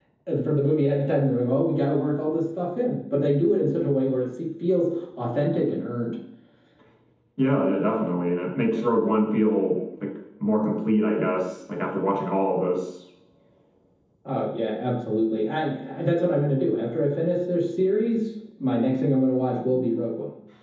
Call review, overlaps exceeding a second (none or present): none